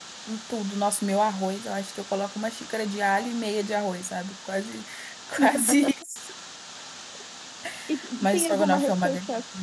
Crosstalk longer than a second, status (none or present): present